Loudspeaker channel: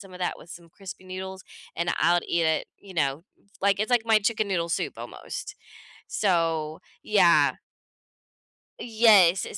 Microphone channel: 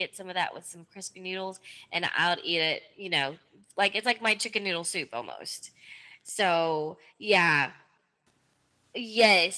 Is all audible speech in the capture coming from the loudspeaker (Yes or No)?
Yes